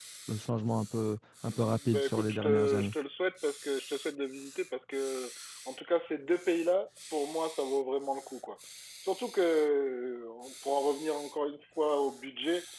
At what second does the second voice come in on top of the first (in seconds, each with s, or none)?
1.5 s